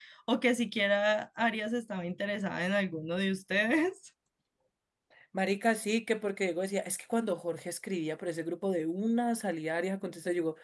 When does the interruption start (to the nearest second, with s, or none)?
none